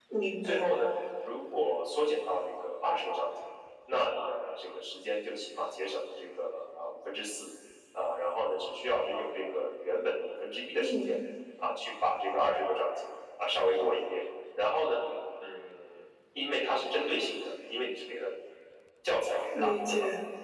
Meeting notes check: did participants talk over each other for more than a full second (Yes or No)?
No